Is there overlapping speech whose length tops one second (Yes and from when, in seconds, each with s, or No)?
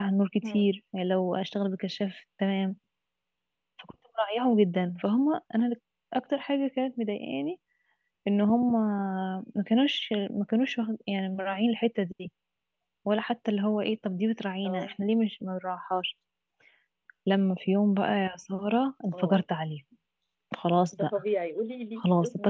No